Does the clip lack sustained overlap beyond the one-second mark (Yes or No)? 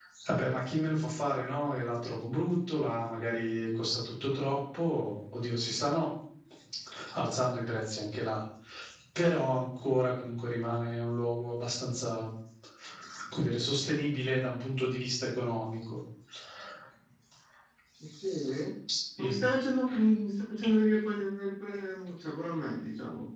Yes